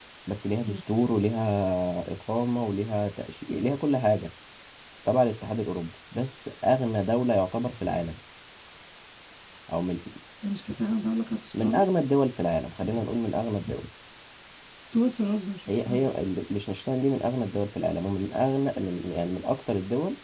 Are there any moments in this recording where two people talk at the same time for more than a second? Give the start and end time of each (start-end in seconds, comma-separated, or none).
none